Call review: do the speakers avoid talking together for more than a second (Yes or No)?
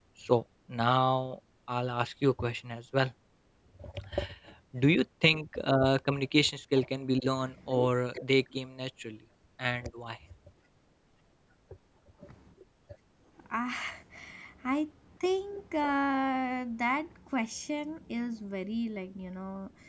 Yes